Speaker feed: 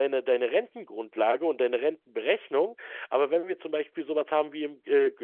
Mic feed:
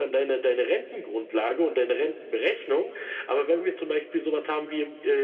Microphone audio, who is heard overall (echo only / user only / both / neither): echo only